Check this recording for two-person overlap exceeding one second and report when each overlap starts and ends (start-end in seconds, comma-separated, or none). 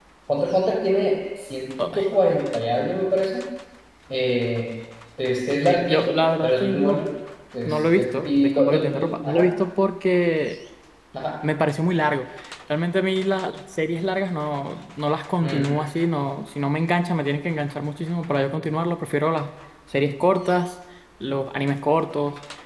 5.6-7.0, 7.7-9.5